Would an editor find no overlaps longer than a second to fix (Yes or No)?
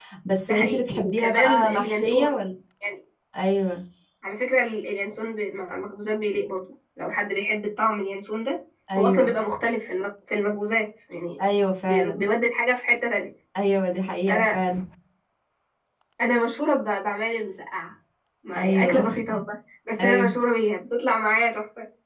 No